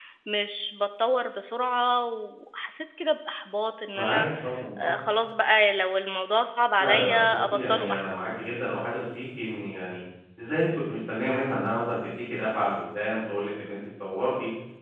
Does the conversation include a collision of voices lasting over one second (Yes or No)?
Yes